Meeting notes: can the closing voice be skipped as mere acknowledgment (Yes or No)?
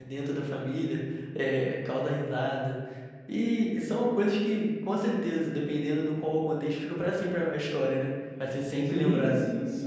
No